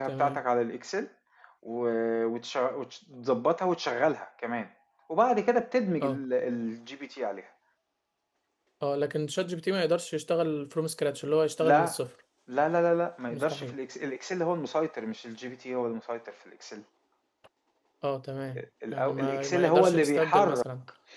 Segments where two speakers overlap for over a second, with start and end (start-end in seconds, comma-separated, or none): 18.9-20.6